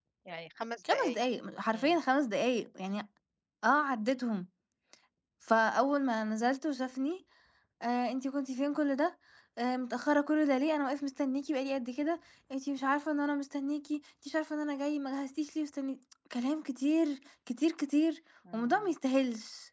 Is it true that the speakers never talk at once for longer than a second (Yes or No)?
Yes